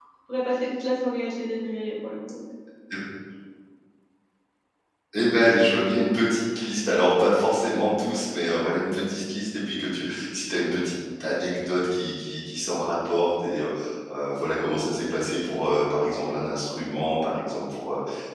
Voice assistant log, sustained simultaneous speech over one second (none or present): none